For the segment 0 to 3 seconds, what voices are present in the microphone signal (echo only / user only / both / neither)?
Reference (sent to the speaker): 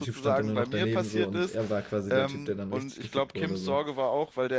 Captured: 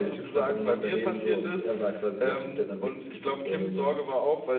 echo only